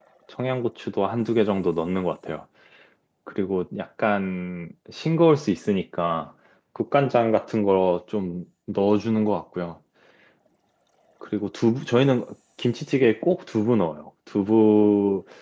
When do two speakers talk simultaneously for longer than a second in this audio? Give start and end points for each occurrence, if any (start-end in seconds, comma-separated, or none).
none